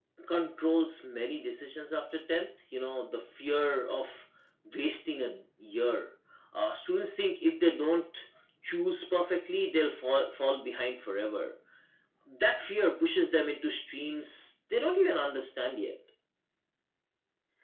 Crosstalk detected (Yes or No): No